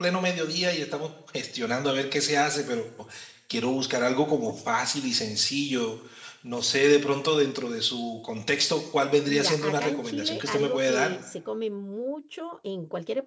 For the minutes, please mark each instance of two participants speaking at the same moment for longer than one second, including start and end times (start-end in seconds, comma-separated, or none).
9.3-11.1